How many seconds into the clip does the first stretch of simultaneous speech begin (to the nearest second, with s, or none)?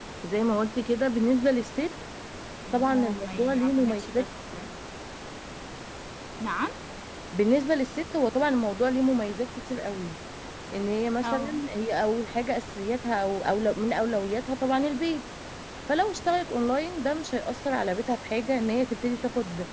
3 s